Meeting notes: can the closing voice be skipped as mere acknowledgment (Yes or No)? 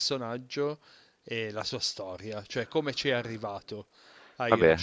Yes